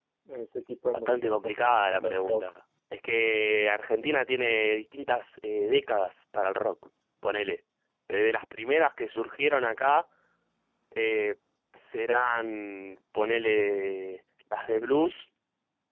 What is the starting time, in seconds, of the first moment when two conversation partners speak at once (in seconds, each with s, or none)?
0.9 s